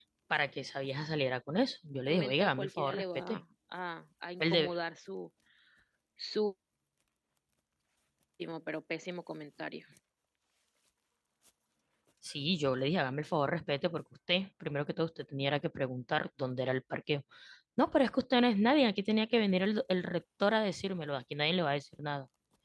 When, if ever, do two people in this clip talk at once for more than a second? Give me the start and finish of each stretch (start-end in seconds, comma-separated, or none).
2.0-3.4